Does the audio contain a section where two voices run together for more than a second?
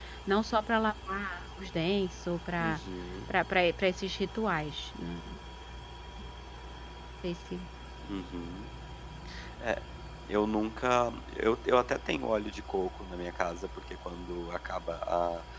No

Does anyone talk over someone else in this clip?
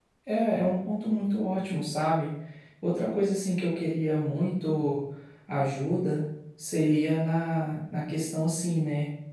No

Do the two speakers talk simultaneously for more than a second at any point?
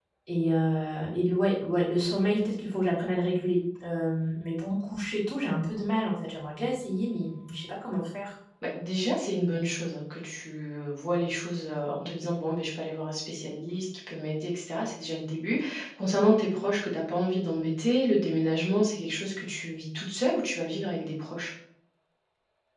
No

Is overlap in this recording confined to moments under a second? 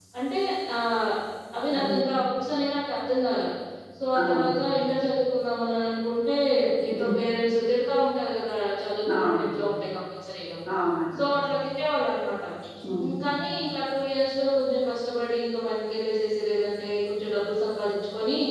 Yes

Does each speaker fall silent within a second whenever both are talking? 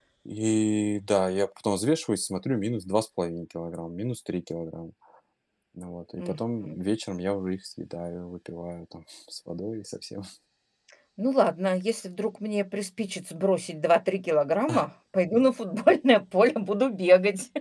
Yes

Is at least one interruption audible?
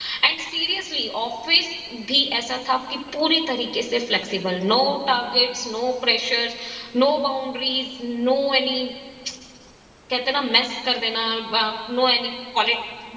No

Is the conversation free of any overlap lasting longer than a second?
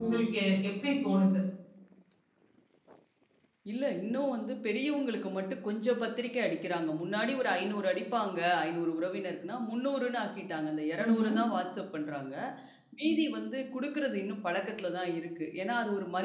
Yes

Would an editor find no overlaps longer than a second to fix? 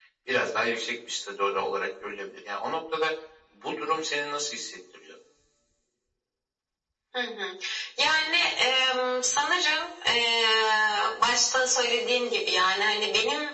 Yes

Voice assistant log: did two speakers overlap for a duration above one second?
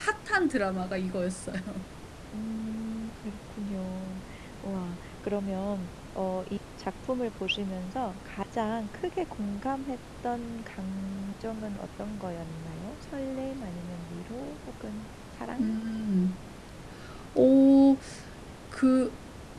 No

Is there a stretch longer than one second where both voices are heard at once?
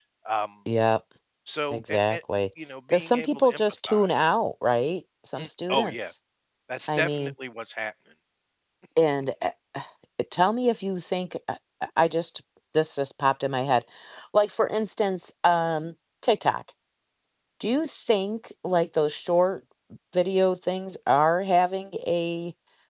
Yes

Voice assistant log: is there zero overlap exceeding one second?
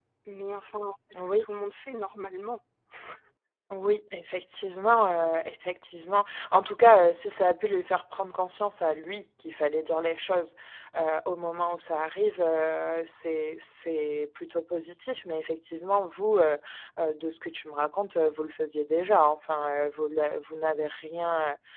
Yes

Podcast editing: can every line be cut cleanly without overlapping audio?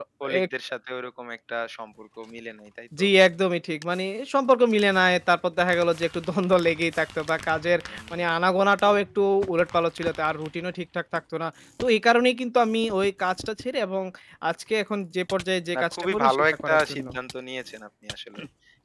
No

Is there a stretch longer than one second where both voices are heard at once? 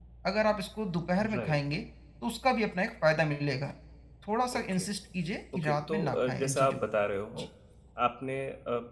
Yes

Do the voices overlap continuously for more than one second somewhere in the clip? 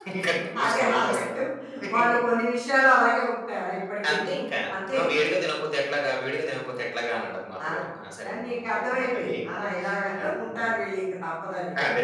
Yes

